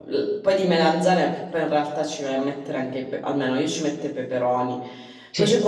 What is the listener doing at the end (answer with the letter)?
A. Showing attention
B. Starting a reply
A